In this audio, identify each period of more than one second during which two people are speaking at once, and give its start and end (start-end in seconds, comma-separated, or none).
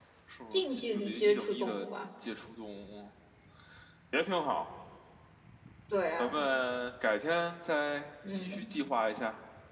0.5-1.9